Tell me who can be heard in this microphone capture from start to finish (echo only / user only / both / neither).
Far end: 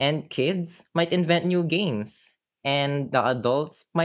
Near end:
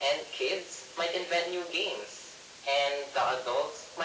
echo only